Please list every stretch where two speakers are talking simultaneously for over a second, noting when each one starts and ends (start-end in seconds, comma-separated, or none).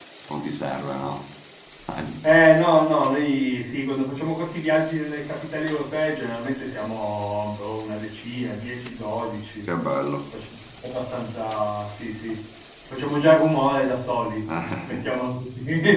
none